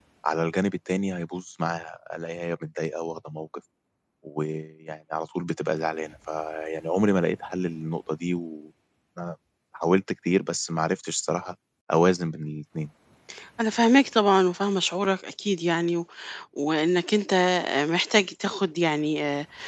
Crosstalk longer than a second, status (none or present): none